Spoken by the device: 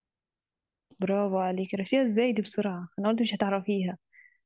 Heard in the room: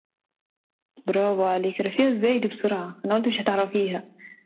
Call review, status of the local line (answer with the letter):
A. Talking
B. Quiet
B